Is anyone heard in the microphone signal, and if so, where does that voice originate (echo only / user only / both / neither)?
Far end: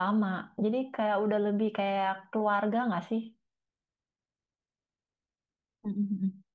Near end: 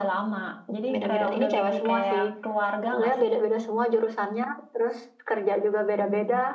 both